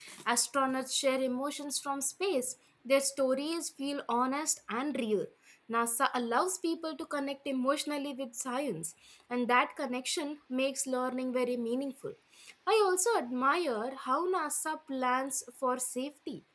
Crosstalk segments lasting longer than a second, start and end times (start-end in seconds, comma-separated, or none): none